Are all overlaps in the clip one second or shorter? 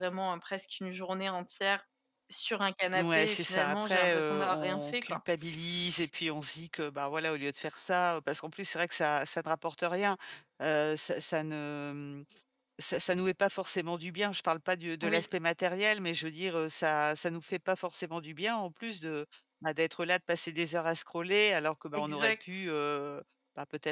No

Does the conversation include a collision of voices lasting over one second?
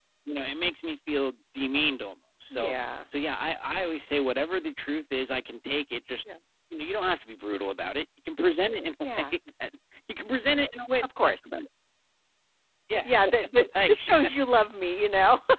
No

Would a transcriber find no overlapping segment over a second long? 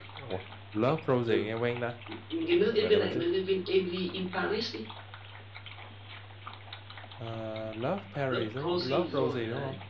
No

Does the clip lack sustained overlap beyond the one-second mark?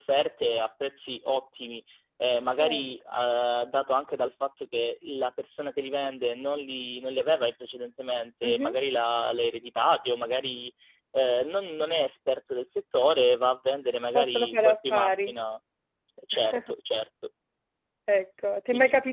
No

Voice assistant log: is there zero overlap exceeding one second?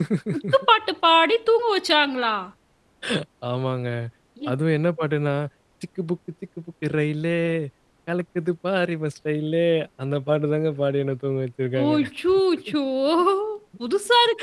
Yes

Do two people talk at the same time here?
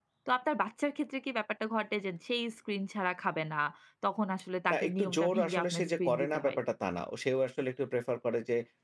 Yes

